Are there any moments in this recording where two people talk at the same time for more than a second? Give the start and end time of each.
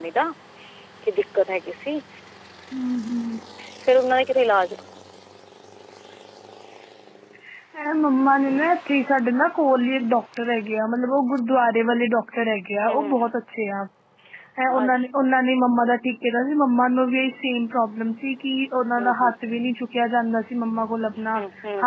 none

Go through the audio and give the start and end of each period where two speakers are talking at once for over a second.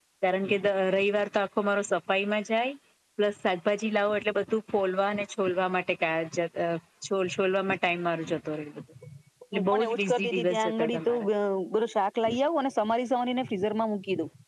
9.6-11.3

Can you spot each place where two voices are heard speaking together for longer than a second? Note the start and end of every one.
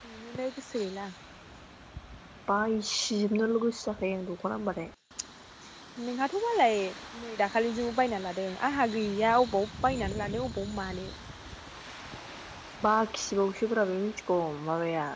none

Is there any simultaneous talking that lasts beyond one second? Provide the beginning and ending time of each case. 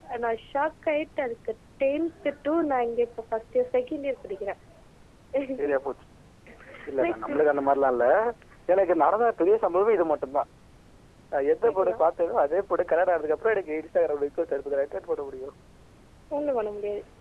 none

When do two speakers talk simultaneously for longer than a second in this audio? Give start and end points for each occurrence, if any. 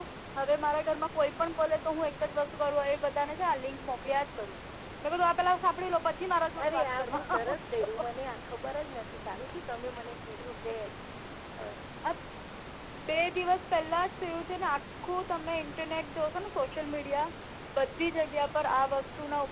6.6-7.9

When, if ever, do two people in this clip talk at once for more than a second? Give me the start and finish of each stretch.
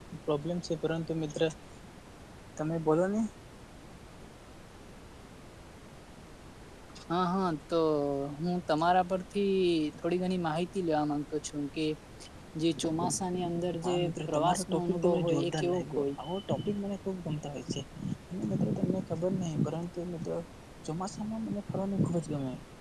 13.8-16.1

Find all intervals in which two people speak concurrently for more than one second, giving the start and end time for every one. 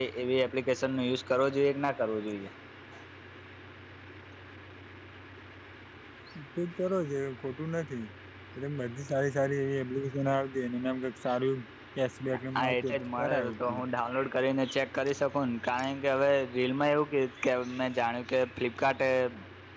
12.6-13.8

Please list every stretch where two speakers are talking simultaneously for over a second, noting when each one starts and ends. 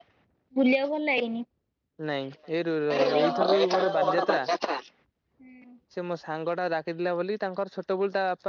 2.9-4.5

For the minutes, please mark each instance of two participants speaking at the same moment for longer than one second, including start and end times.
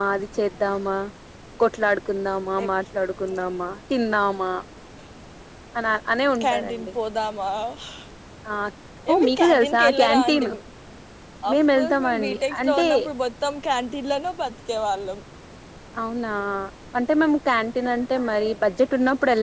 9.1-10.5, 11.5-12.9

